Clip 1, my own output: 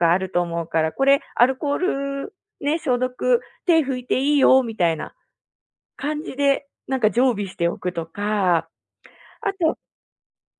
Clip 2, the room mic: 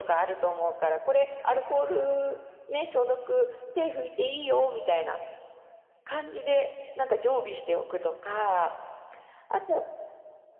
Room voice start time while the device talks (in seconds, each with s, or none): none